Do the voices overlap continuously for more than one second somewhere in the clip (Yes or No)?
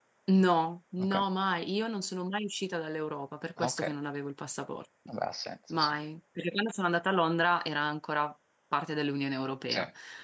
No